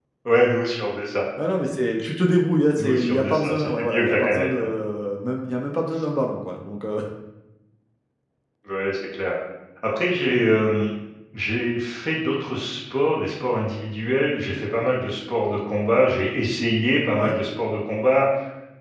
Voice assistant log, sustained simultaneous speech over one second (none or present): present